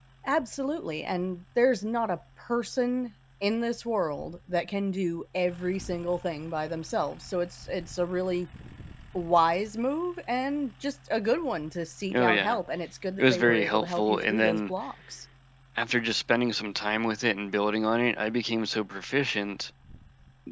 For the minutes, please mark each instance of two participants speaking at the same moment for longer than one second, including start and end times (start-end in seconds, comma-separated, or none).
13.2-14.7